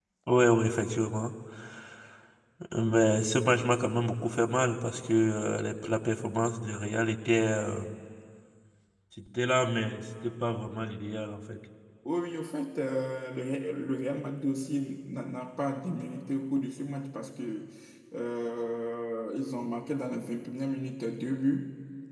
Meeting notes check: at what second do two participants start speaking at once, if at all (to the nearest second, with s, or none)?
none